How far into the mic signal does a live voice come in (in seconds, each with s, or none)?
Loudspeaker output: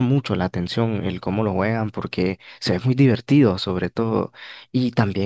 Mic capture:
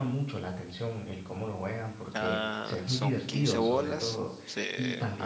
2.1 s